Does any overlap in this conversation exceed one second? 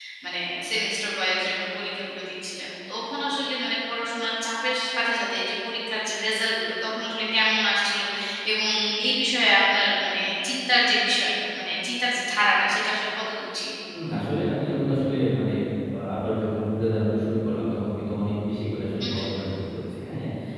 No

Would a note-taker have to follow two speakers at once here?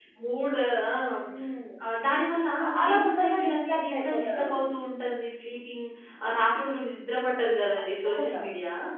Yes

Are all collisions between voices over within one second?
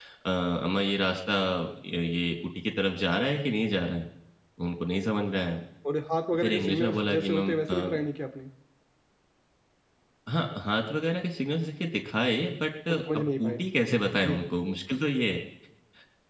No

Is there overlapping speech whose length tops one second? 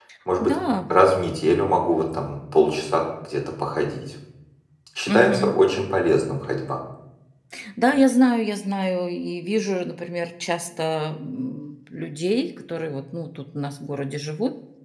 No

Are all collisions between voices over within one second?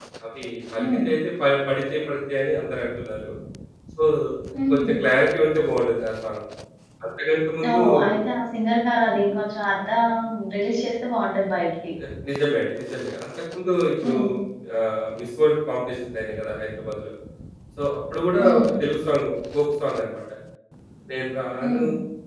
Yes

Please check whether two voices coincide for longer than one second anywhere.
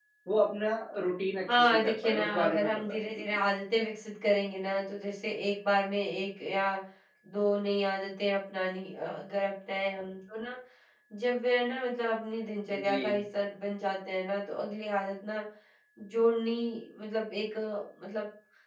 Yes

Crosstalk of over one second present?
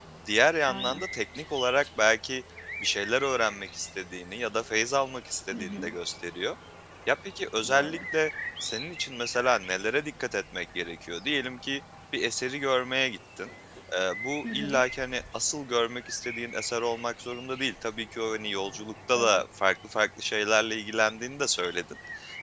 No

